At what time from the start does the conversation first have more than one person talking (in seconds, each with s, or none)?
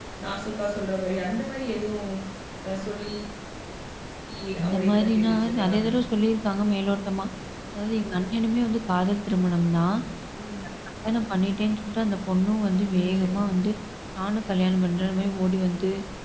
4.7 s